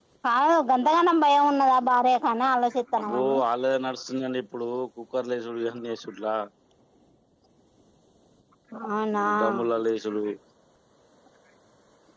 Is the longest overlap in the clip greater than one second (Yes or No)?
No